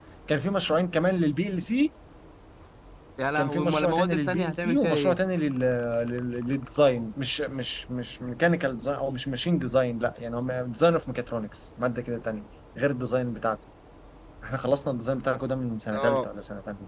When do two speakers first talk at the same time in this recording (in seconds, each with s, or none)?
3.4 s